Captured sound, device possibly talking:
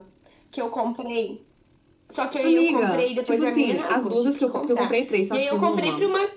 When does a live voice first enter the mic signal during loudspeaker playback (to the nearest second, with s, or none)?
2 s